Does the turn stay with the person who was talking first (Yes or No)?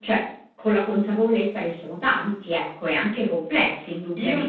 No